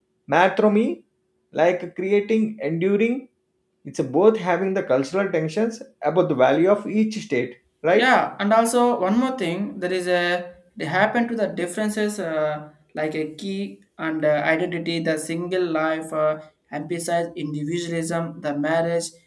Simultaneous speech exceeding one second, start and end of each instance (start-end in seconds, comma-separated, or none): none